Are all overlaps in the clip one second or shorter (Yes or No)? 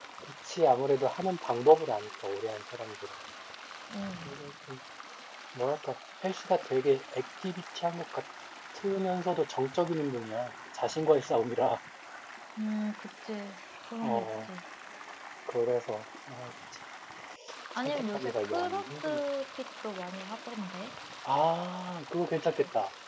No